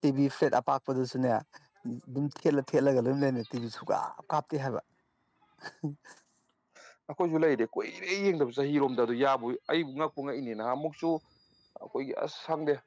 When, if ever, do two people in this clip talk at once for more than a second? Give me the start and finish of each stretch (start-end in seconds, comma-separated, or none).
none